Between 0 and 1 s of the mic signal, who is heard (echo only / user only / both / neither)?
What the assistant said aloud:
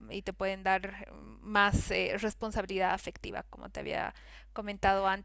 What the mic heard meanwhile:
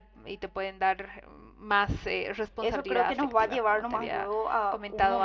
echo only